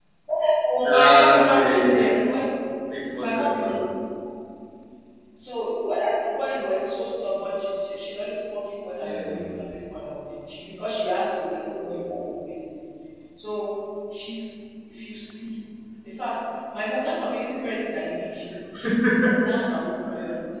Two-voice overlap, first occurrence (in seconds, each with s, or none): 0.8 s